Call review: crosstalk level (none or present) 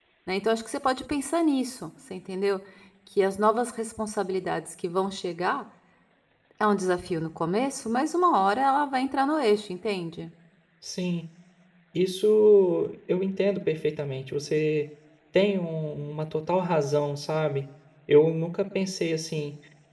none